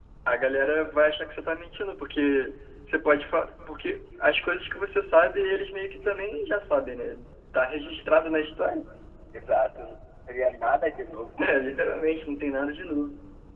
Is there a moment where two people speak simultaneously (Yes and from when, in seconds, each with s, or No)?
No